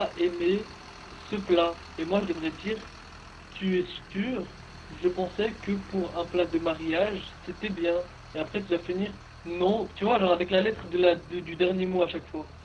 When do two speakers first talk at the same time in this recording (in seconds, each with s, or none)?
none